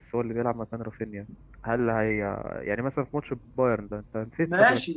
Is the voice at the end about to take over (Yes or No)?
Yes